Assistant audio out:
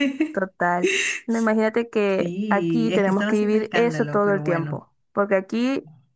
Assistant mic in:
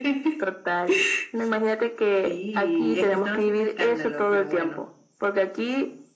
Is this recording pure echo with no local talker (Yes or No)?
Yes